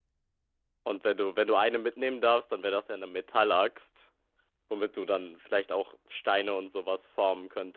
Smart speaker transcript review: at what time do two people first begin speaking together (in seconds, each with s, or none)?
none